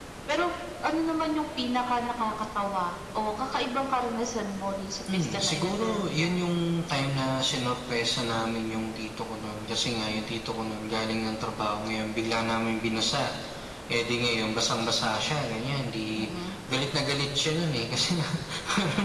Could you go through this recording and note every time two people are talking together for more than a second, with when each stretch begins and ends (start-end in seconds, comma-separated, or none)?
5.1-6.4